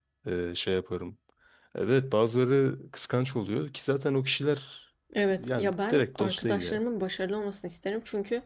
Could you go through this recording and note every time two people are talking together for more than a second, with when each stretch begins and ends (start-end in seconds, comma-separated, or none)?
5.4-6.8